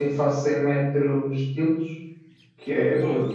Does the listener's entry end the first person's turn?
No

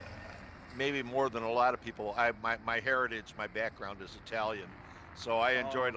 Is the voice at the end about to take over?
No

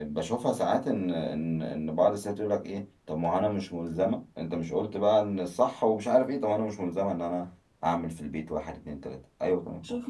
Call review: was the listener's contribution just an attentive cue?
No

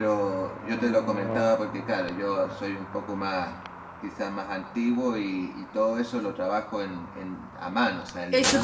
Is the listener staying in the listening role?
No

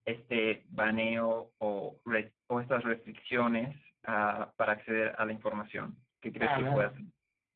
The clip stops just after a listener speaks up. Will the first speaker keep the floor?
No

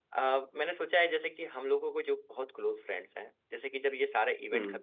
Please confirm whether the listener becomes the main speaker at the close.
No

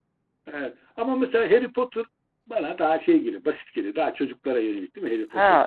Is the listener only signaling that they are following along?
No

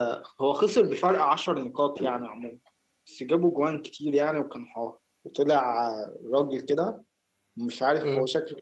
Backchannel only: Yes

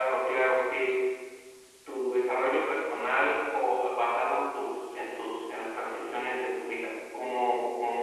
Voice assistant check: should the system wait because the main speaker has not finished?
No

